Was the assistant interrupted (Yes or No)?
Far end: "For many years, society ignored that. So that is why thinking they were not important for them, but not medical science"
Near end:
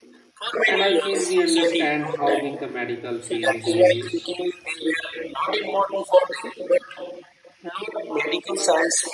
Yes